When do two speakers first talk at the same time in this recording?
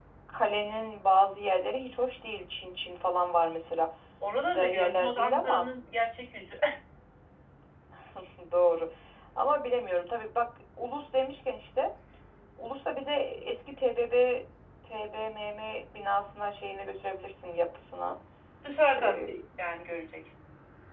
4.5 s

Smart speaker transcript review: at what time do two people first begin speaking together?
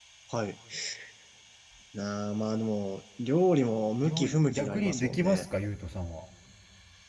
4.0 s

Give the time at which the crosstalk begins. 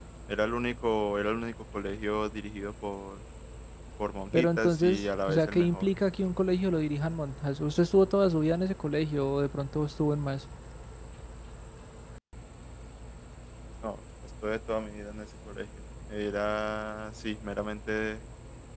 4.3 s

